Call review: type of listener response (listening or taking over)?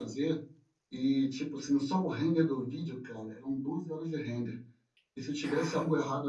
listening